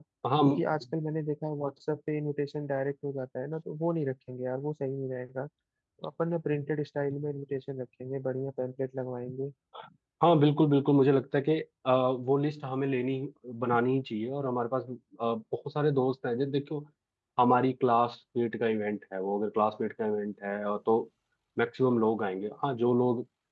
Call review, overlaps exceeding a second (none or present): none